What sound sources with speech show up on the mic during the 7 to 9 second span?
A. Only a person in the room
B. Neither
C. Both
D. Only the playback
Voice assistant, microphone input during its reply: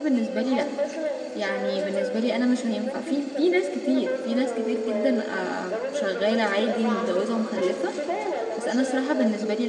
C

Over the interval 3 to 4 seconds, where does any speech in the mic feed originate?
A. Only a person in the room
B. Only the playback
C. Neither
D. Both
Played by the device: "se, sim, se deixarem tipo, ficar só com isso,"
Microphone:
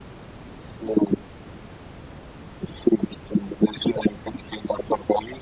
B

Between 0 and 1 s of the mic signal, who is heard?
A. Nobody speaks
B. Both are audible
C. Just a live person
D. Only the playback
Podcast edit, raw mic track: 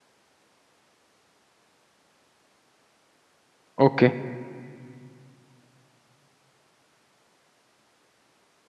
A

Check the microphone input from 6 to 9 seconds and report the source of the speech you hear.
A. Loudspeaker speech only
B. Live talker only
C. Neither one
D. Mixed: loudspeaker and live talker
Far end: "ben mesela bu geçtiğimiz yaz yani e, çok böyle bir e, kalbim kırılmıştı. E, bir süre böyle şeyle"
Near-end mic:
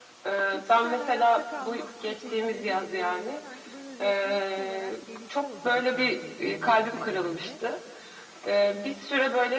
D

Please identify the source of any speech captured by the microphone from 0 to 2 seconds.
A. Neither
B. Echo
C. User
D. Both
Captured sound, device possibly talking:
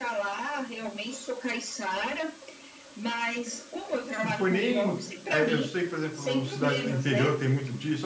B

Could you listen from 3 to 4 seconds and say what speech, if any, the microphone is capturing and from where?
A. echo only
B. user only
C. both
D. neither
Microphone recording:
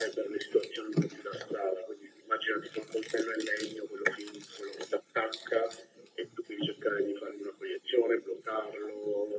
A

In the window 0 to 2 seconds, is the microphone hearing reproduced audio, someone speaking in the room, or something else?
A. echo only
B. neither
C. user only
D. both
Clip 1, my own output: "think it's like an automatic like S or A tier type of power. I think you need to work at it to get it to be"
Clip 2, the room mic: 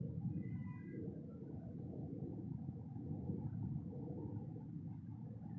B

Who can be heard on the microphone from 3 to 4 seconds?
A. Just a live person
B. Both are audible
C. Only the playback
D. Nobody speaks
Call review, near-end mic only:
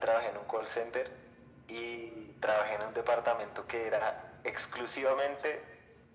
C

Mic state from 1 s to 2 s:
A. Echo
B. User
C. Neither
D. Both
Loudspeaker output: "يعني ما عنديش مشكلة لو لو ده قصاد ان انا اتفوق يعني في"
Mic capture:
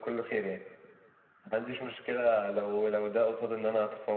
A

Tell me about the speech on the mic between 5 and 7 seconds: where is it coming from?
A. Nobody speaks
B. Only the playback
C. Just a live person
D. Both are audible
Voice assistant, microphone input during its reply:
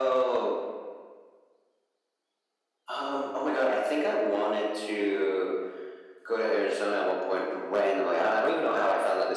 B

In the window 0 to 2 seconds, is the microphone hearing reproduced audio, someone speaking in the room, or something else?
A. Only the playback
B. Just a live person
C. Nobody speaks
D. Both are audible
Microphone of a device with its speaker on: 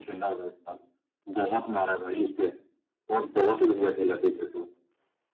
A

